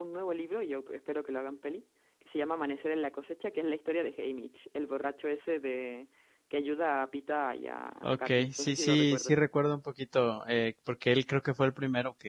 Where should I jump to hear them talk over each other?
8 s

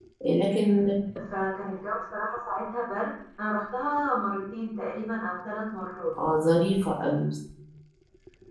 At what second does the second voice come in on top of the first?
none

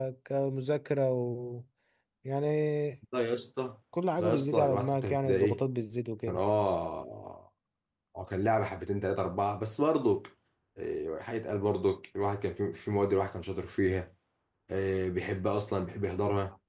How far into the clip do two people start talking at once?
4 s

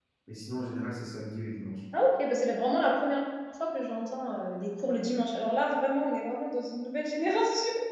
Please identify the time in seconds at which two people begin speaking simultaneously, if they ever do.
none

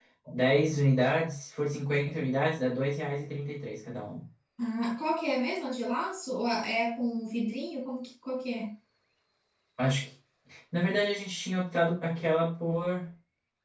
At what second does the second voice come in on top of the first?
none

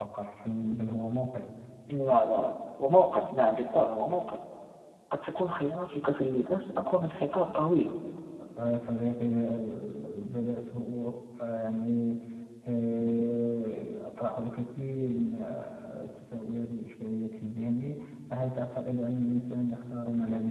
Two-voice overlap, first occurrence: none

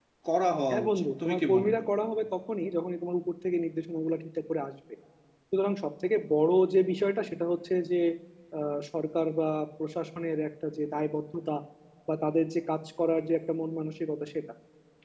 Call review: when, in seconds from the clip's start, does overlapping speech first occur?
1 s

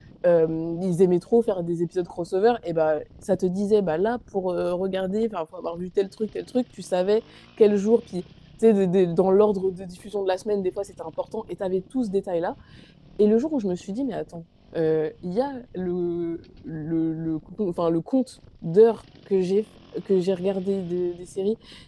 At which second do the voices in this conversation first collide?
none

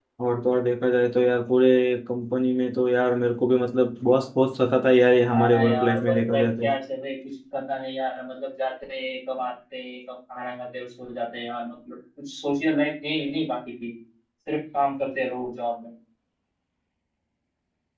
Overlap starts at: 5 s

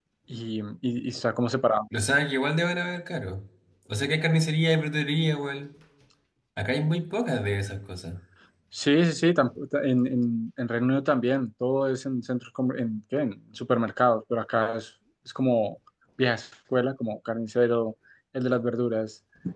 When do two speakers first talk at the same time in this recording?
none

